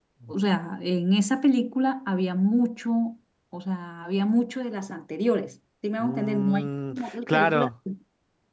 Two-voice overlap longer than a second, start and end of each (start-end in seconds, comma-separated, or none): 6.0-7.7